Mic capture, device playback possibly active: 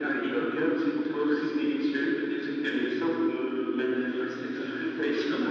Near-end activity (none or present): none